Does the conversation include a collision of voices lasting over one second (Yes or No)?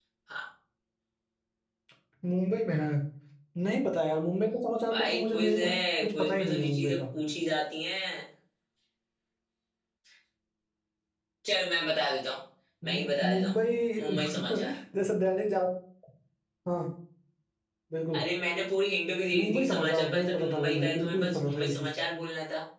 Yes